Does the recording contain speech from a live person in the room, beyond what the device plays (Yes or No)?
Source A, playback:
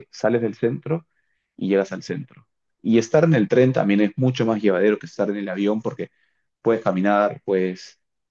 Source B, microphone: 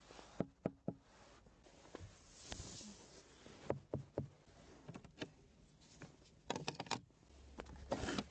No